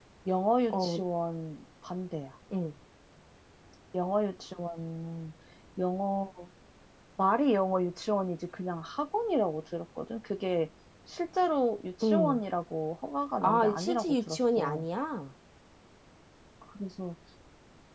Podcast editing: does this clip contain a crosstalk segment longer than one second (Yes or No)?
Yes